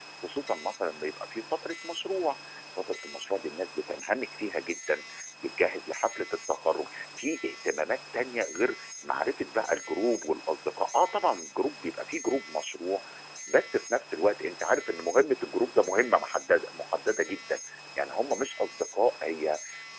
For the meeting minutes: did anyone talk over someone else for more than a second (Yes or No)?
No